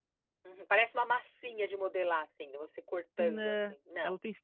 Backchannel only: No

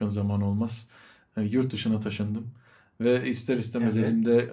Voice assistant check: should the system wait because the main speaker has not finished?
Yes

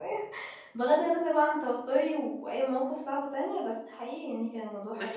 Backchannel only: No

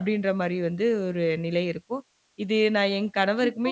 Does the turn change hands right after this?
Yes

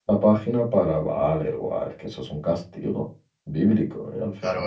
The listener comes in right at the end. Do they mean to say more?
Yes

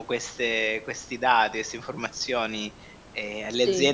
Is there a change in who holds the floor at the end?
No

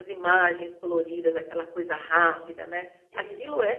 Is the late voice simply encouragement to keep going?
Yes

